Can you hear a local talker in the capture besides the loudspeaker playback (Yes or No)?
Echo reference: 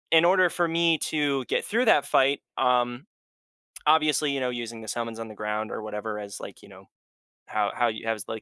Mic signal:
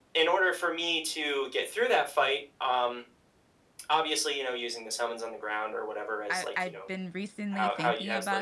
Yes